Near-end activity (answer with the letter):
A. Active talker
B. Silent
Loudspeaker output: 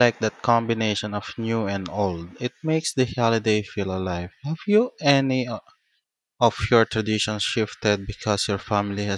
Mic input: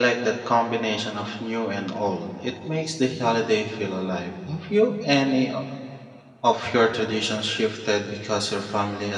B